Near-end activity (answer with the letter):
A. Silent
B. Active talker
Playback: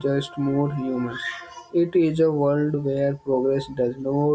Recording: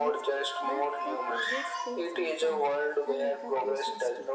B